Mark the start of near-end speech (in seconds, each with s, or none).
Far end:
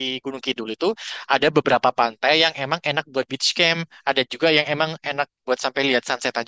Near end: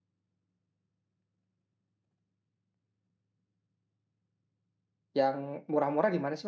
5.2 s